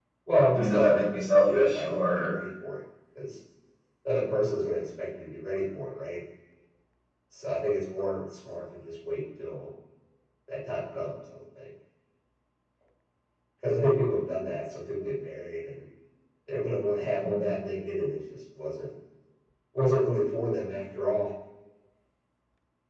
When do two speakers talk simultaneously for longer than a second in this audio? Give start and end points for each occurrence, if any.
0.5-2.3

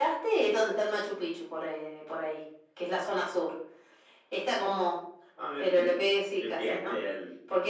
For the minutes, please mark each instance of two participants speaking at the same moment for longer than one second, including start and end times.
5.6-7.0

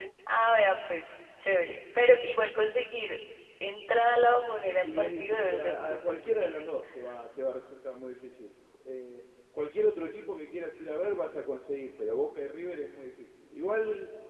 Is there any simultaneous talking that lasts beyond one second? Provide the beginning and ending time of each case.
4.8-6.6

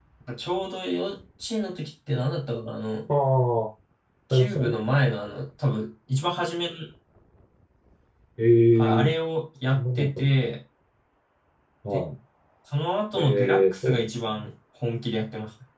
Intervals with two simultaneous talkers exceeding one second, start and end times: 13.1-14.4

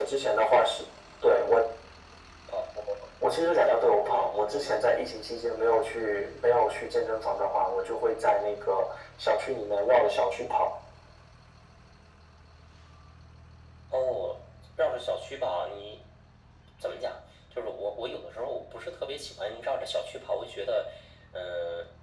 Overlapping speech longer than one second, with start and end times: 3.4-4.9

